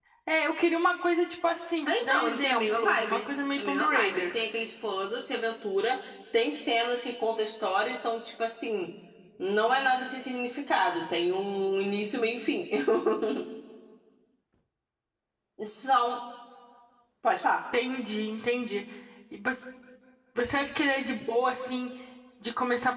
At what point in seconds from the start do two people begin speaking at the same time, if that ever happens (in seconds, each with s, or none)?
1.9 s